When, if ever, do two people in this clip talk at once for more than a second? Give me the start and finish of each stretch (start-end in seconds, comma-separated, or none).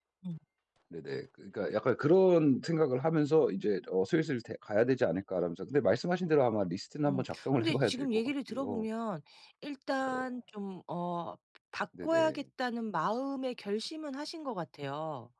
7.0-8.8